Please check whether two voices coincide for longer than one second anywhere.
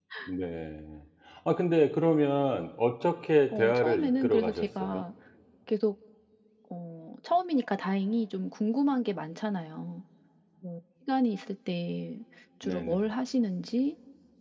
Yes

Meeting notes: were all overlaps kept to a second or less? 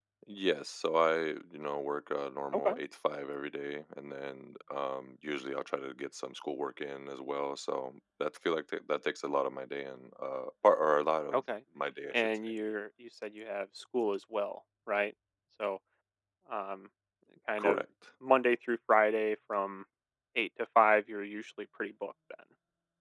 Yes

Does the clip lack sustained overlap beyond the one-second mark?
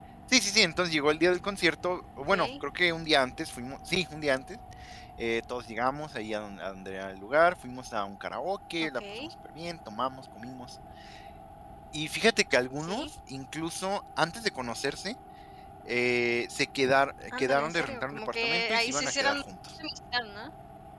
No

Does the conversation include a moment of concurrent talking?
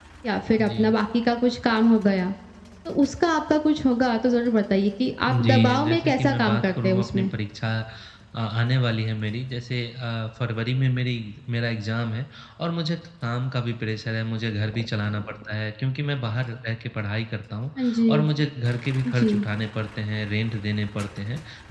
Yes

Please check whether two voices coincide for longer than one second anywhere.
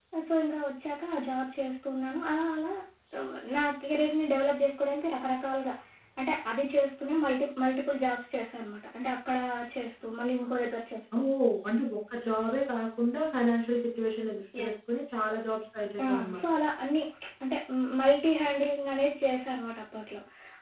No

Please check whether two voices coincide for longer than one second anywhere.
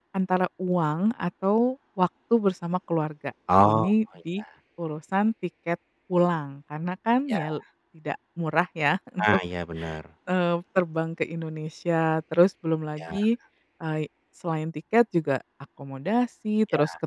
No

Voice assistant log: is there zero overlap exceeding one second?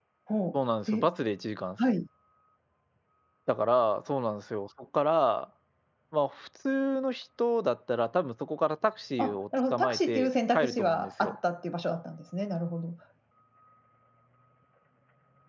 No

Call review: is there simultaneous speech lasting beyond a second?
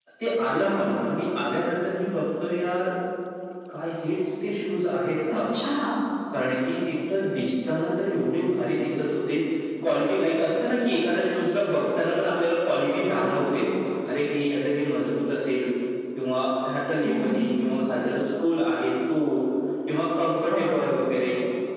No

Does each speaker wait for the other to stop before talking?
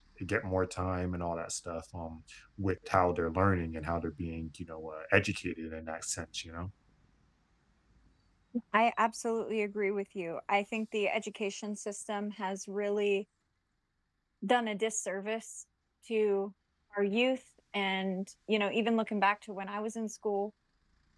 Yes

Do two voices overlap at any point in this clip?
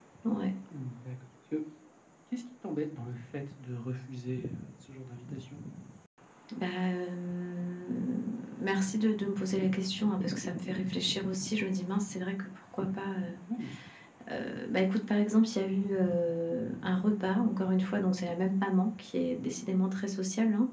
No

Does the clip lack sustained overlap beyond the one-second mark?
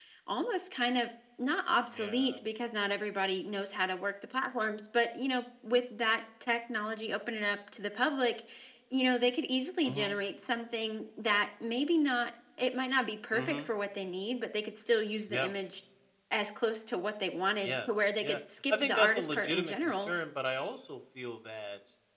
No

